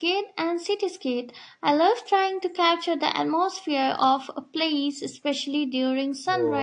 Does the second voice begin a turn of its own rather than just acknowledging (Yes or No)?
Yes